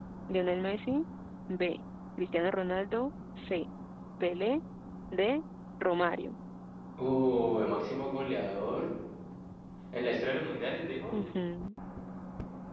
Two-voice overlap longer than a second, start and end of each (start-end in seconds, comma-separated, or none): none